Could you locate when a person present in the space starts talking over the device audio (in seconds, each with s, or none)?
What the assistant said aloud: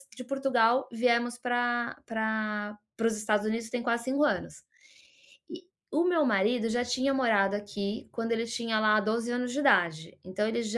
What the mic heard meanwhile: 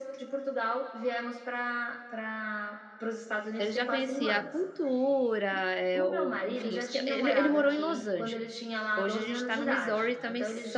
3.5 s